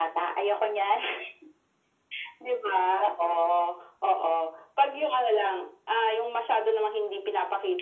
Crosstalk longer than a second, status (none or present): none